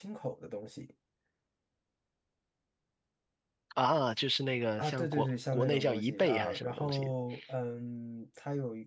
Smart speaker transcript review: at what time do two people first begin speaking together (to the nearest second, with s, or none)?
5 s